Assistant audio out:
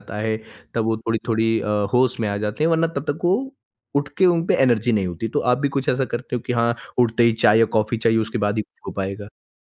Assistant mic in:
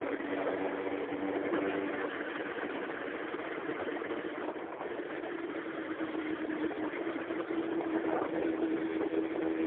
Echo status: none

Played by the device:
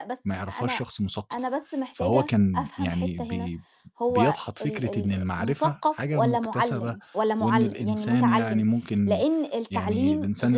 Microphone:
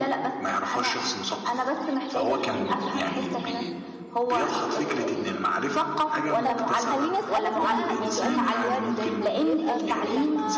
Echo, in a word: present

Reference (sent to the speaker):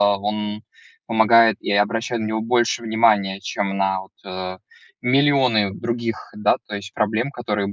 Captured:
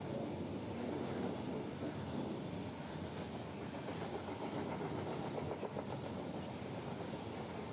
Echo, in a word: none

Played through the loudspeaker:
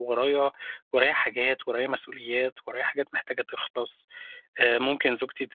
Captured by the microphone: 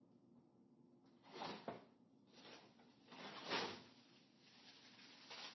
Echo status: none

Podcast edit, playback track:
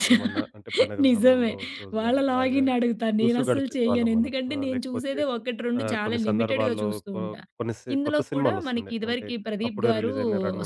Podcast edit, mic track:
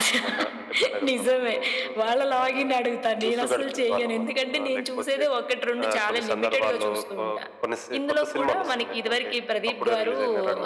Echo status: present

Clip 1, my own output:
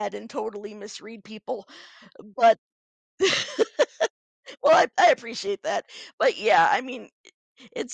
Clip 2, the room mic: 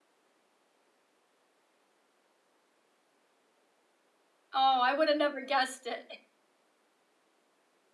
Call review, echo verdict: none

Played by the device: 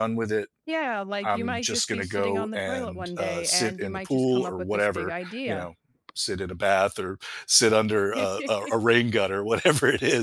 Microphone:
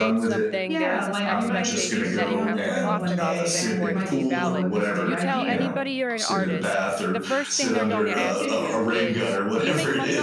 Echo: present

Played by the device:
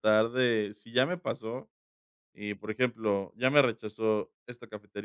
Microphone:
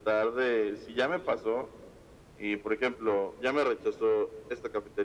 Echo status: present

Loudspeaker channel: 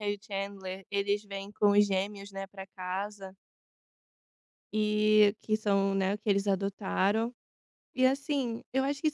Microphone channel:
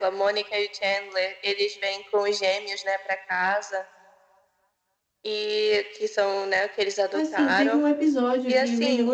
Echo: present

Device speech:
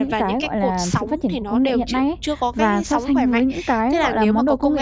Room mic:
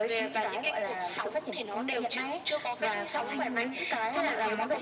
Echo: present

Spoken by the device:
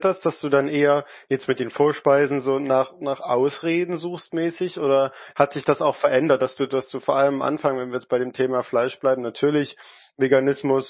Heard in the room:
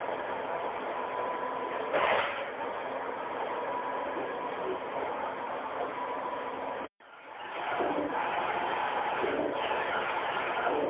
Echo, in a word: none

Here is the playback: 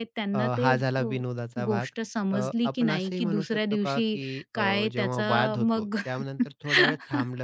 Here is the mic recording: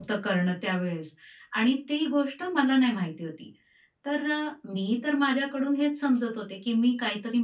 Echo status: none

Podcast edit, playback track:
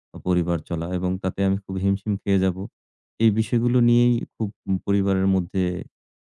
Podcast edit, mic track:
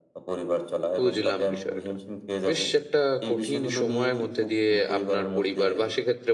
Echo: present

